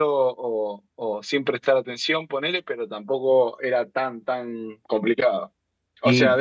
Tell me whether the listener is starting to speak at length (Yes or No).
No